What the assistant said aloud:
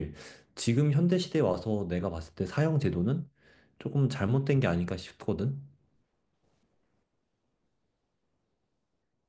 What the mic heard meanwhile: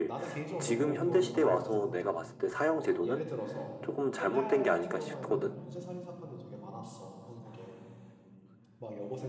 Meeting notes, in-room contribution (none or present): present